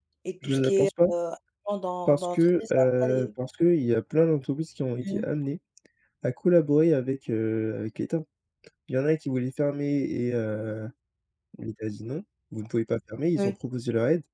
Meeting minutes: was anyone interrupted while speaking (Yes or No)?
Yes